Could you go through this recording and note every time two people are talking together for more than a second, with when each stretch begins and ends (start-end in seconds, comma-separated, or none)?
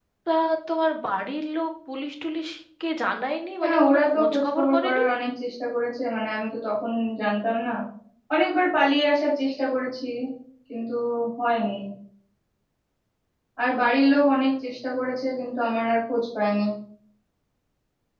3.6-5.0